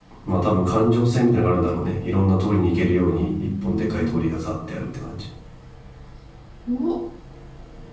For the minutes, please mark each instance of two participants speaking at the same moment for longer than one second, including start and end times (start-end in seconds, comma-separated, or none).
2.9-4.2